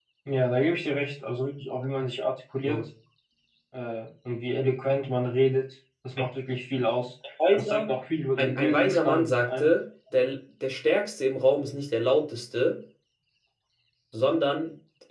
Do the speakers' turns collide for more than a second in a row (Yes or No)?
Yes